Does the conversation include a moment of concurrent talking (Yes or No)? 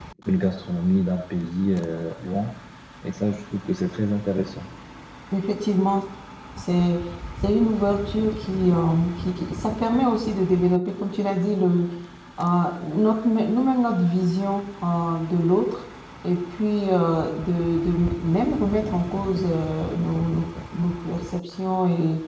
No